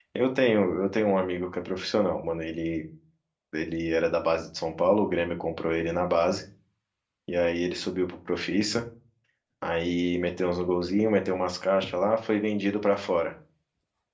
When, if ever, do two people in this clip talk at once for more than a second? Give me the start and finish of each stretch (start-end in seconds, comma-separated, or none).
none